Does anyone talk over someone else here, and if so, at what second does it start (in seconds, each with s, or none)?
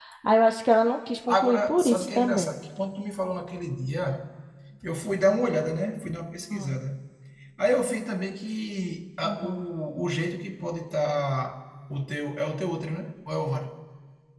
1.3 s